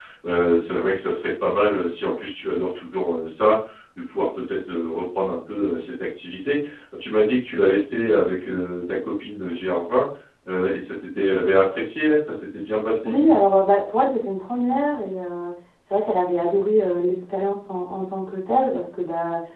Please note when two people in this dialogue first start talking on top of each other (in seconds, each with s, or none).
none